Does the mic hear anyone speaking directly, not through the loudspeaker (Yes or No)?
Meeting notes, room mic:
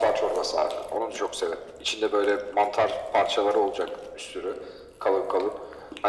No